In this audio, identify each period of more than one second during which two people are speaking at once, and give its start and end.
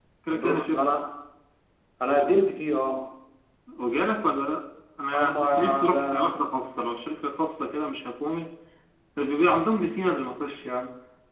5.1-6.4

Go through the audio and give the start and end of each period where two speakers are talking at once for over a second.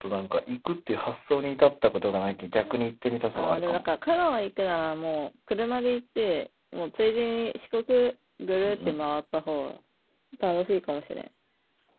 none

